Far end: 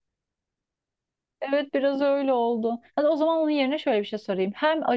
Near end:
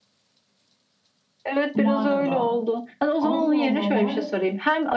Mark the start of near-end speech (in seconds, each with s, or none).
1.7 s